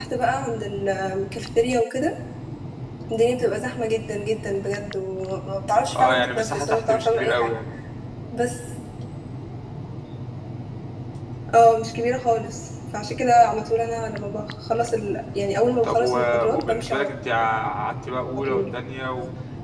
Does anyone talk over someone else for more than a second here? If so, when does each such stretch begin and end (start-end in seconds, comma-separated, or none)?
6.0-7.6, 15.8-17.1